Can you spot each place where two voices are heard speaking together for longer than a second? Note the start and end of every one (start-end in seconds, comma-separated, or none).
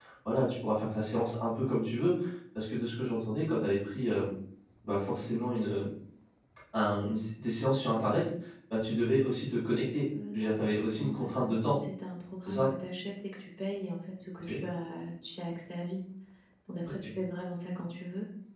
10.3-11.8